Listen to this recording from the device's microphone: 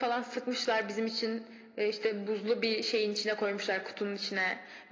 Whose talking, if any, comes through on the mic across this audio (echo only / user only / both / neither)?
echo only